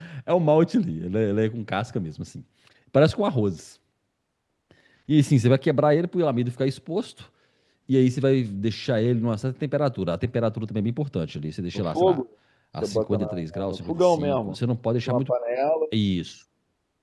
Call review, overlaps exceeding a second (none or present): present